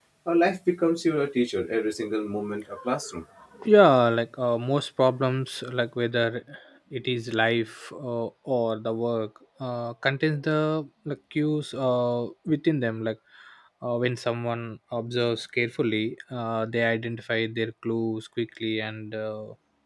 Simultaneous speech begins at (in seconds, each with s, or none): none